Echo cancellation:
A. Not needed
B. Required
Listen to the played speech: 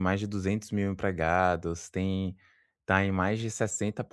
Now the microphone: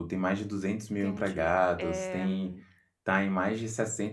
B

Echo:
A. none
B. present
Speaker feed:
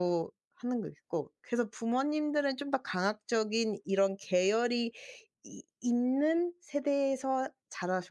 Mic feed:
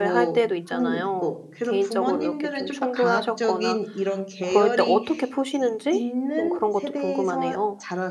B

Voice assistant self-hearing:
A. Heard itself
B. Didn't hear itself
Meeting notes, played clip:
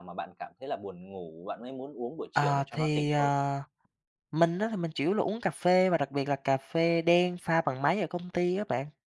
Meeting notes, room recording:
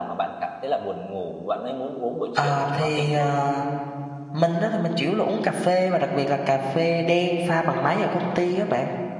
A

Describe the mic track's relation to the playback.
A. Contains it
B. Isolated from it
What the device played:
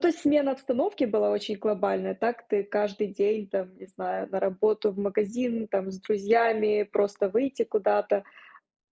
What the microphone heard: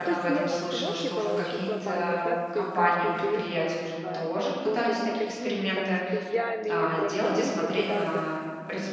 A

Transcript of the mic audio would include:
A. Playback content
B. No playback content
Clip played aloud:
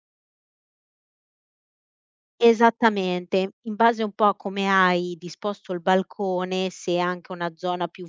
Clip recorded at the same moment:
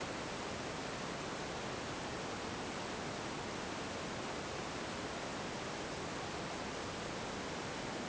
B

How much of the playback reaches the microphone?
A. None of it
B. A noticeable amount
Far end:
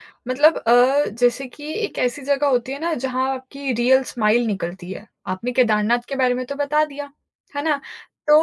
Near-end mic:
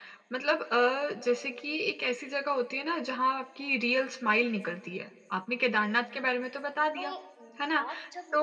B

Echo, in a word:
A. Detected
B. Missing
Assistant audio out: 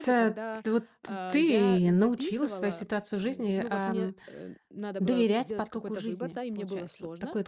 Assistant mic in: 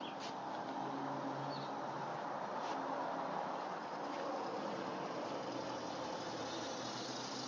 B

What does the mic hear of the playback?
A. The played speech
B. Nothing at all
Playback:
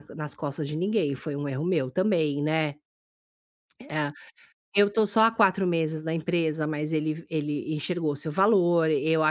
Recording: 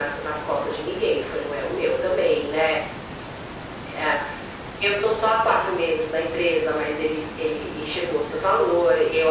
A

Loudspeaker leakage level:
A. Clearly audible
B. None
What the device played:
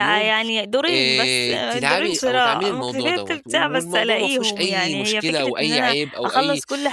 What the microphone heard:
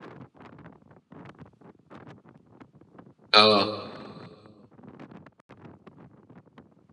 B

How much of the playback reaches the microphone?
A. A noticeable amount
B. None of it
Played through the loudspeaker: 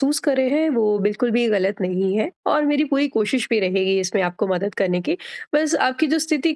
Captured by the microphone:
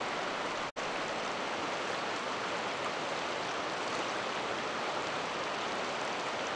B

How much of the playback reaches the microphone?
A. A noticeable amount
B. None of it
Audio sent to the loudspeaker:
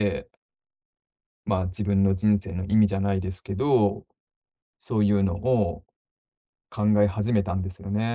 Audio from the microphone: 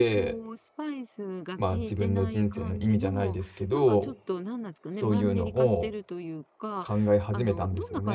A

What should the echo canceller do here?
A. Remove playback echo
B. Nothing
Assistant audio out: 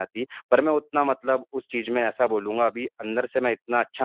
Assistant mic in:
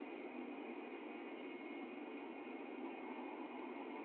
B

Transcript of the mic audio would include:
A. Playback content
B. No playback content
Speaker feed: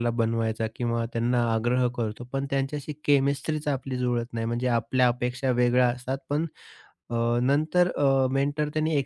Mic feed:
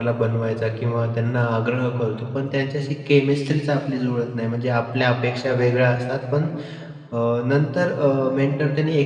A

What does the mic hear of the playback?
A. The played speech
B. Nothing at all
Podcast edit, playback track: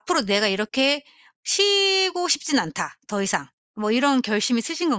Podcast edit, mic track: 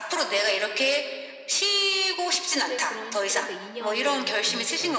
A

